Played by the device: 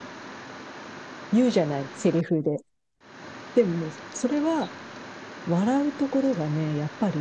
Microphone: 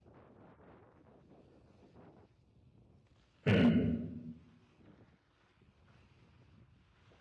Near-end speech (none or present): present